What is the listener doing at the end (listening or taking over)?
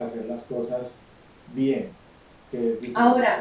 taking over